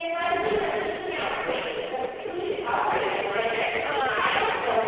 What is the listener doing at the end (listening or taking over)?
listening